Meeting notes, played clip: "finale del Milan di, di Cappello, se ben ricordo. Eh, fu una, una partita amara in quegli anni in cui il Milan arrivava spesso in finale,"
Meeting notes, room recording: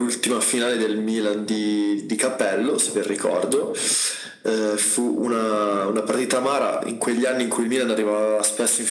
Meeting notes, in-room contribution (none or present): none